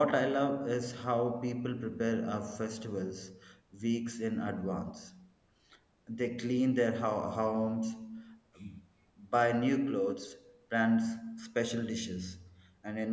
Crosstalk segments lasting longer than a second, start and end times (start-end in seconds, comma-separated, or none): none